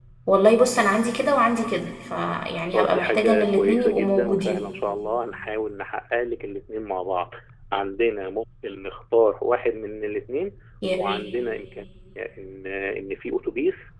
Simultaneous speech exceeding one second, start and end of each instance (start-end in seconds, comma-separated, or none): 2.7-4.7